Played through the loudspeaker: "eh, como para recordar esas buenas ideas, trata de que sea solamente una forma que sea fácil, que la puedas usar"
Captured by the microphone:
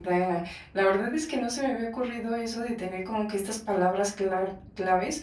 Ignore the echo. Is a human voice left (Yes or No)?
Yes